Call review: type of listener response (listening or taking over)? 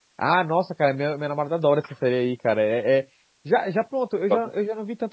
listening